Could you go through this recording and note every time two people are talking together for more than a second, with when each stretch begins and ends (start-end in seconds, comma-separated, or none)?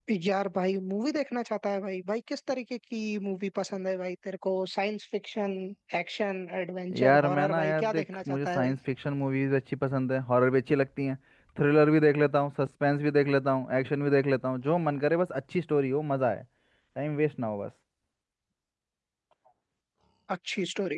7.0-8.8